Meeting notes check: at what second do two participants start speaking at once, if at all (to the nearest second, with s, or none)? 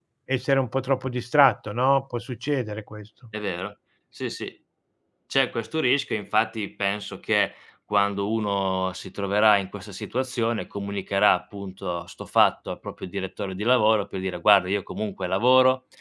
none